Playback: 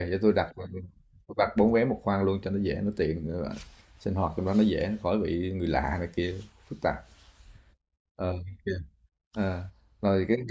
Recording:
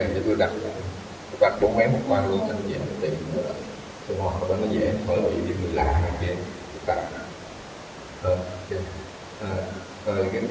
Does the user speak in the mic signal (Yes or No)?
Yes